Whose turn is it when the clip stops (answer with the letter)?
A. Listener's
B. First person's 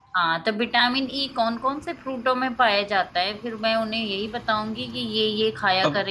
A